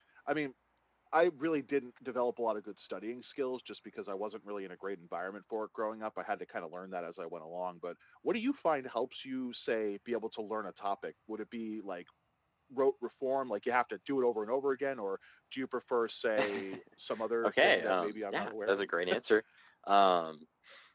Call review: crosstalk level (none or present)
present